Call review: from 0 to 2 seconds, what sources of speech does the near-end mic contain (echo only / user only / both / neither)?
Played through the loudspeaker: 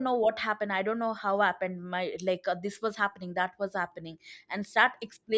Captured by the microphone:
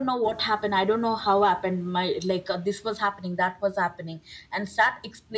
echo only